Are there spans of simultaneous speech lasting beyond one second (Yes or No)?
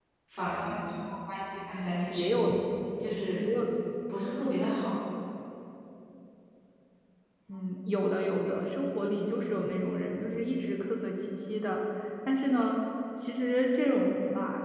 No